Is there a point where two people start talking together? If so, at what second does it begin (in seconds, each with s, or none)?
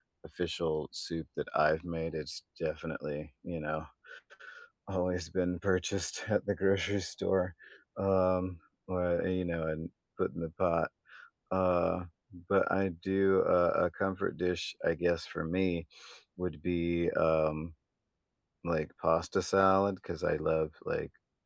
none